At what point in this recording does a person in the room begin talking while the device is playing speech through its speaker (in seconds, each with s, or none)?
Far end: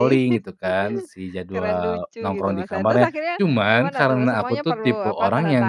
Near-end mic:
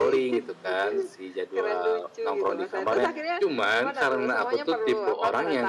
none